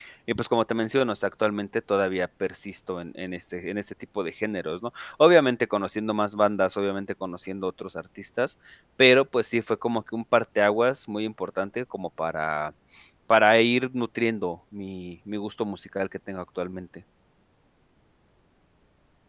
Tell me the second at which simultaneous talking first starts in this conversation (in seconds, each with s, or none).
none